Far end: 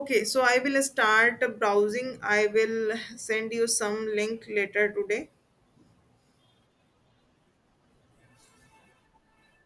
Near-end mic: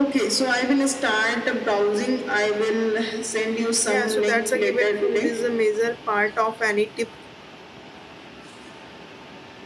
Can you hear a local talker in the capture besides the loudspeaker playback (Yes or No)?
Yes